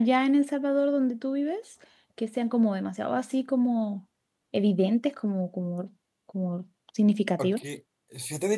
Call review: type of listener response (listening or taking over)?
taking over